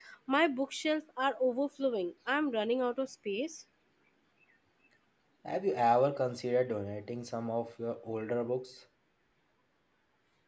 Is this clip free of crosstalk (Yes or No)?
Yes